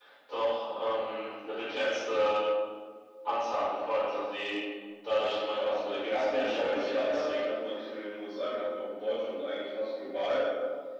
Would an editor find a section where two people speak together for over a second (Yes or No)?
Yes